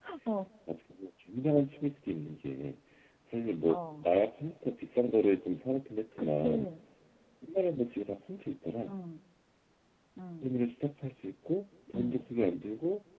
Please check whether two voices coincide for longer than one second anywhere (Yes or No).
No